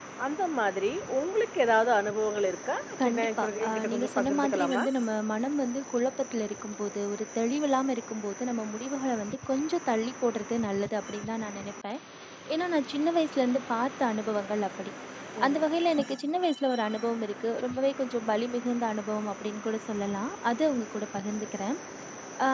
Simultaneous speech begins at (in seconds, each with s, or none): 3.0 s